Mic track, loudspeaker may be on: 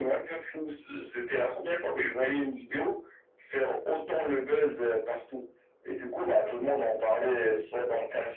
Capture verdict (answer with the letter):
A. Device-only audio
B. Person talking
A